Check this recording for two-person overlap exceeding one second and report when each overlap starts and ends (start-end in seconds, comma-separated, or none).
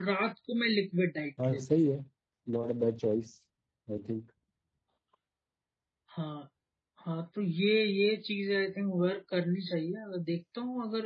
none